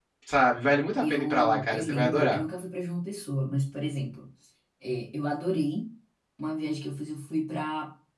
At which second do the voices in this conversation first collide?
1.0 s

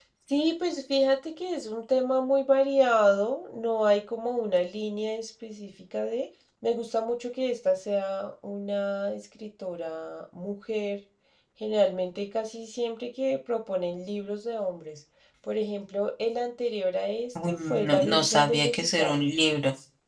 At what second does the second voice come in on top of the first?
17.4 s

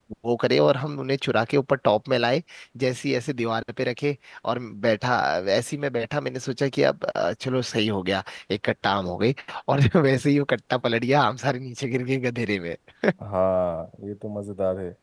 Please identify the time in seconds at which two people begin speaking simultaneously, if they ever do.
none

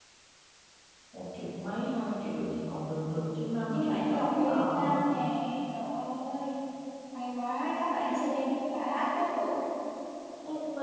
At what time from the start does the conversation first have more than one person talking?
3.7 s

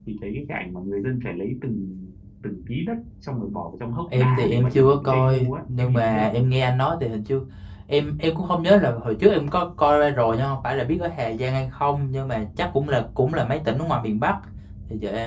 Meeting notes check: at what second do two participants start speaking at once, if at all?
4.1 s

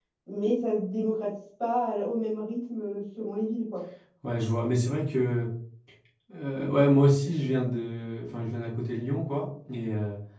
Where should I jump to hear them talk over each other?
none

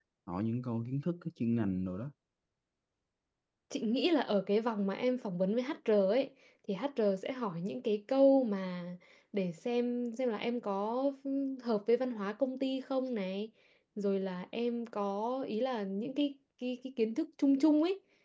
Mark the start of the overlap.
none

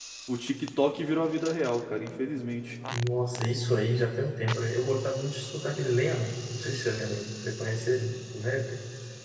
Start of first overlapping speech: none

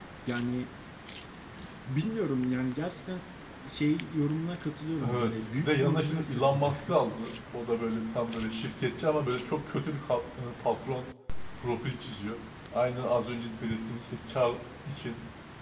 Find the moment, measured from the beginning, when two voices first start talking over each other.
5.0 s

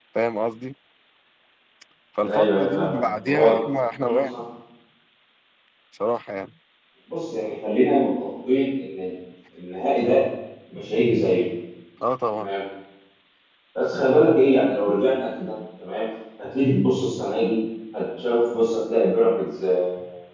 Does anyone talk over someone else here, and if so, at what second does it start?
2.2 s

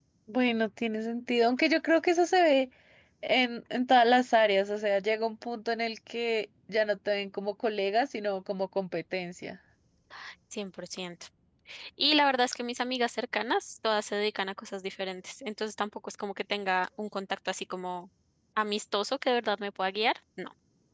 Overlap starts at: none

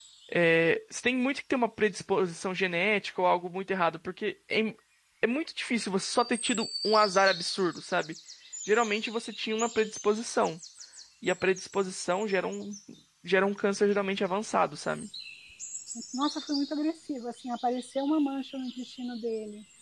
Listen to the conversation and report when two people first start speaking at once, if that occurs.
none

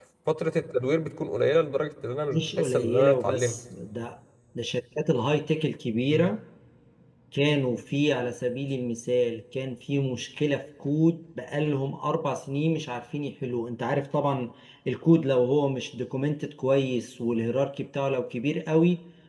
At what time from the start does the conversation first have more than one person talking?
2.3 s

